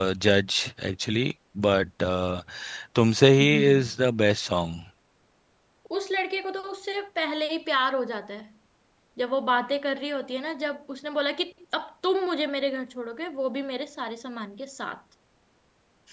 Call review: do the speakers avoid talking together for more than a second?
Yes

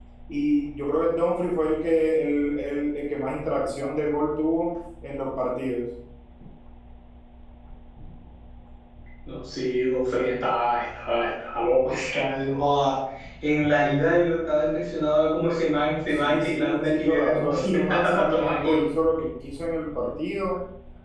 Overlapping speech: Yes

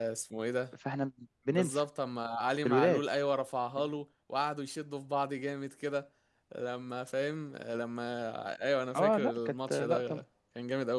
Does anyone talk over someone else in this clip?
Yes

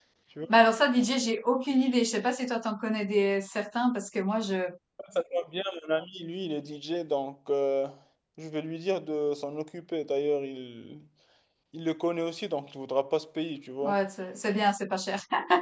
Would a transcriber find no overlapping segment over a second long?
Yes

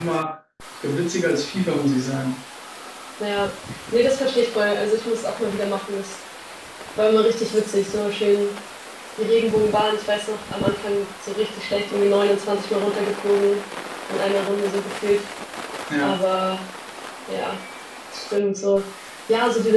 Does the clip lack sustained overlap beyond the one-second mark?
Yes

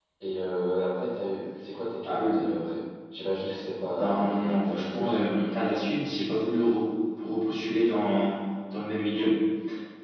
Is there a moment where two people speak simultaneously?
Yes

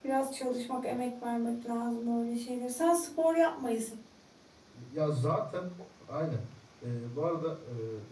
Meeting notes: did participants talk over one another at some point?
No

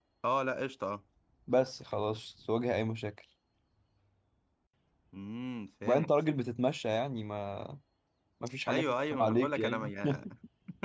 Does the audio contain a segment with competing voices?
Yes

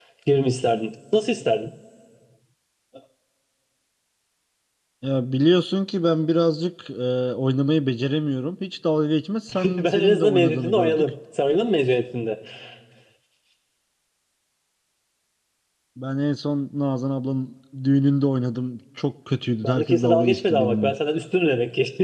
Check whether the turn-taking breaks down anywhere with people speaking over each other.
Yes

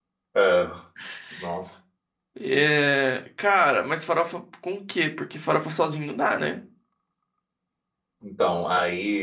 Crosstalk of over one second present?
No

